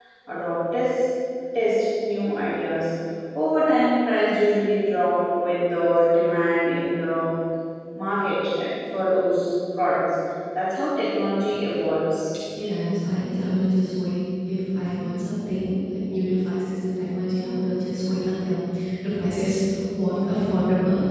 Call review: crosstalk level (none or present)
none